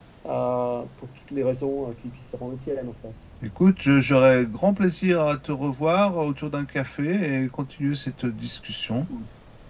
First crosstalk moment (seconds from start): none

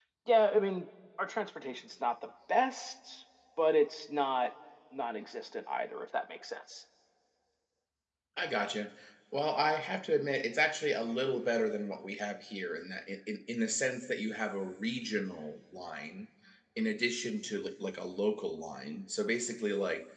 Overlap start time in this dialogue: none

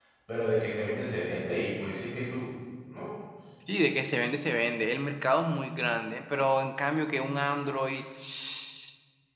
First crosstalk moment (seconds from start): none

